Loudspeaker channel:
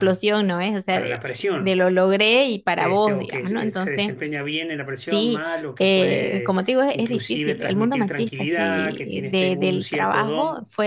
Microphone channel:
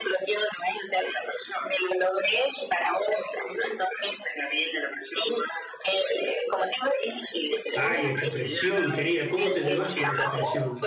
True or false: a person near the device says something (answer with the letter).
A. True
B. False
A